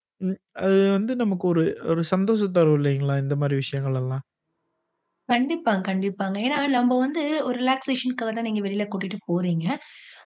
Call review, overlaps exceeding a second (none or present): none